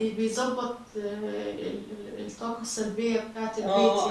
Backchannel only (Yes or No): No